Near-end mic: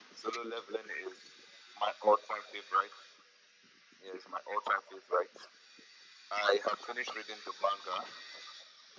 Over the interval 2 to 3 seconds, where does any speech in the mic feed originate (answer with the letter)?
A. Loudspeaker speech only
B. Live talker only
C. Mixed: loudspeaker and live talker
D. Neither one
A